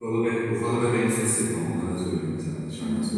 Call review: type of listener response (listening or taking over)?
taking over